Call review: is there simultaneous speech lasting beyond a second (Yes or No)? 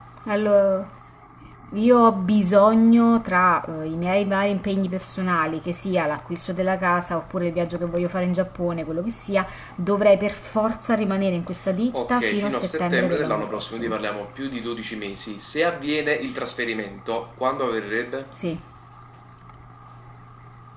Yes